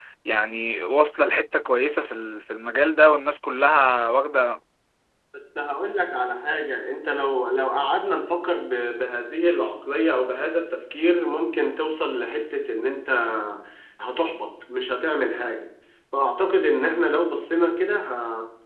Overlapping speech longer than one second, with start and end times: none

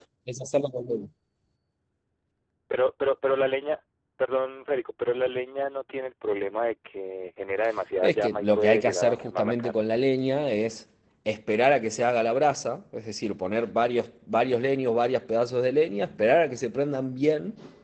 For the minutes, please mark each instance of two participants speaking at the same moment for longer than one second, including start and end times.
8.0-9.9

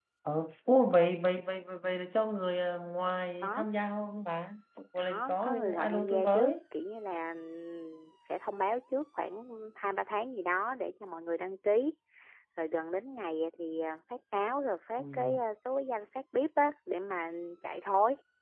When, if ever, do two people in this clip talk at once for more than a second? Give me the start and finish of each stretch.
5.0-6.5

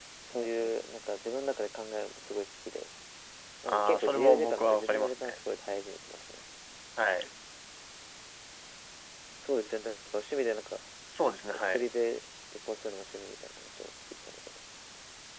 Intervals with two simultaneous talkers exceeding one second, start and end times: 3.7-5.4

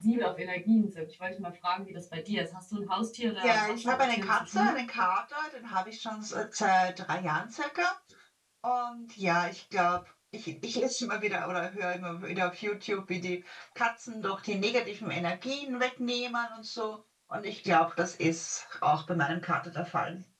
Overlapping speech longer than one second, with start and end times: 3.4-4.8

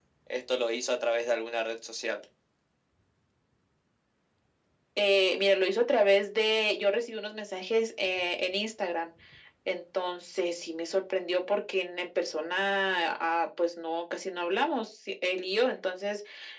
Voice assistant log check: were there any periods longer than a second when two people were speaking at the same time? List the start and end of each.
none

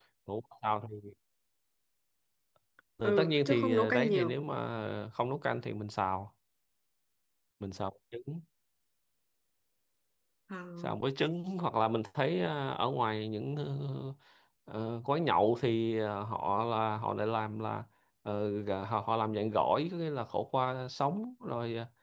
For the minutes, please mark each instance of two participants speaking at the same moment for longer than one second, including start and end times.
3.0-4.4

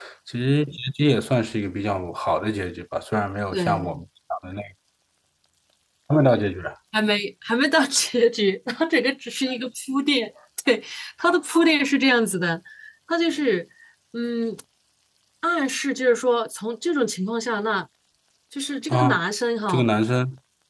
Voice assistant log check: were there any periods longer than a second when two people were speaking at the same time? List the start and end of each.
none

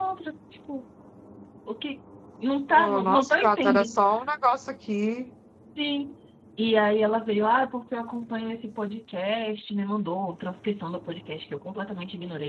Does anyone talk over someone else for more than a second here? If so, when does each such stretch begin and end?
2.7-4.0

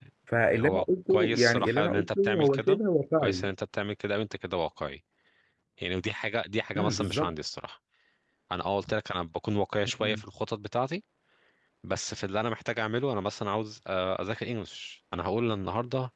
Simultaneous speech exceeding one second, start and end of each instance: 0.5-2.8

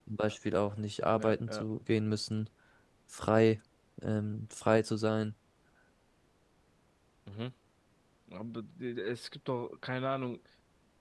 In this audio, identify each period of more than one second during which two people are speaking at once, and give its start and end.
none

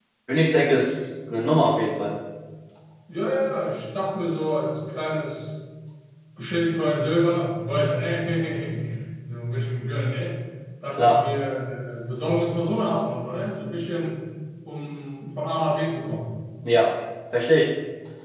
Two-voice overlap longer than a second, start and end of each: none

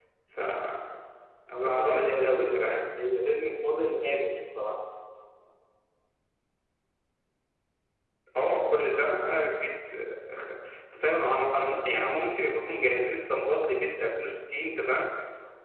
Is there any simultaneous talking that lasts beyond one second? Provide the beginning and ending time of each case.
1.6-2.9

